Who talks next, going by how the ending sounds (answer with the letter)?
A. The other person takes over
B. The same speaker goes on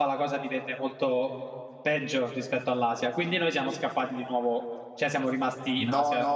A